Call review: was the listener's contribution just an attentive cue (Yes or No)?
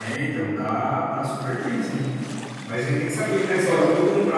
Yes